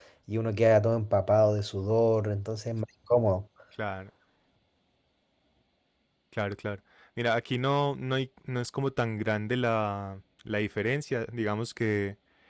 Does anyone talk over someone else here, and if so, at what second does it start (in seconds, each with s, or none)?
none